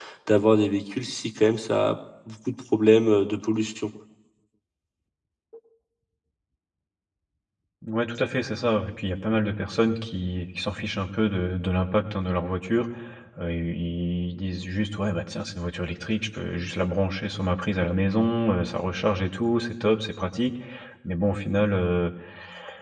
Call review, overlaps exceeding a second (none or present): none